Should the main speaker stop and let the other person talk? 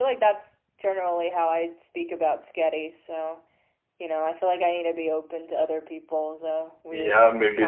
Yes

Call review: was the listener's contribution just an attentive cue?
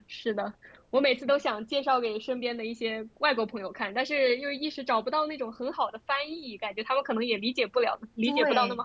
No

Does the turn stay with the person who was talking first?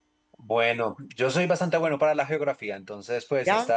Yes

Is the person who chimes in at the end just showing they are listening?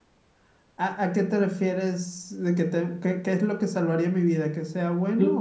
No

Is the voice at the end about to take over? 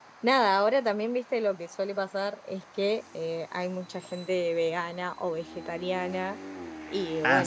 No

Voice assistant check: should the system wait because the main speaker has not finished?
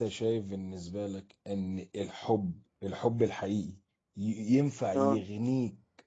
Yes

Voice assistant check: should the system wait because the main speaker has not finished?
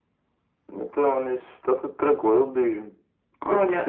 No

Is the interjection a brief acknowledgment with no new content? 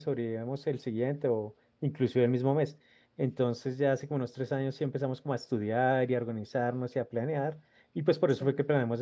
Yes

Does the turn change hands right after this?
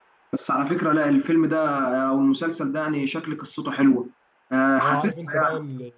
Yes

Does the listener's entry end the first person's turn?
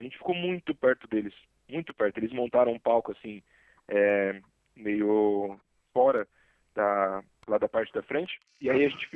No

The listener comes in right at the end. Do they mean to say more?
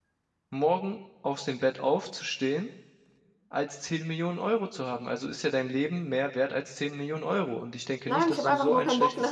Yes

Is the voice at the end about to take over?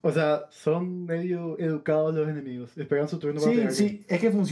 Yes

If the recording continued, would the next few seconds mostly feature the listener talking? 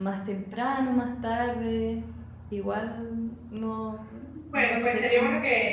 Yes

